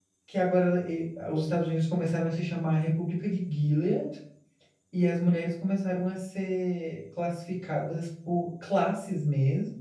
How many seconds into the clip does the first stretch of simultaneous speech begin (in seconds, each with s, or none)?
none